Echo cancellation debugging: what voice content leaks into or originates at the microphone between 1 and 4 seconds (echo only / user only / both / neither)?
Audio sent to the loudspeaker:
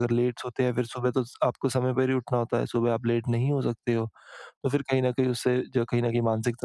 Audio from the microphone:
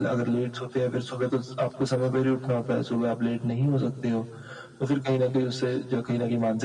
echo only